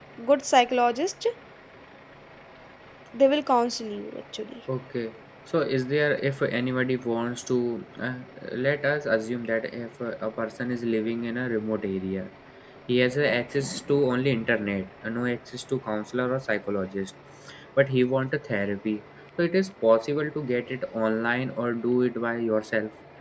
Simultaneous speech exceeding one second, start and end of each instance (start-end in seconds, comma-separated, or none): none